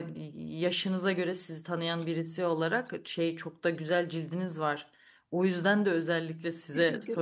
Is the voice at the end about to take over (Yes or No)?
No